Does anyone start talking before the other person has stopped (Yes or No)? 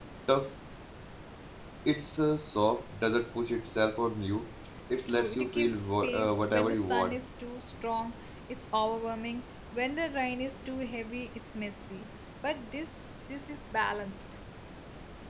Yes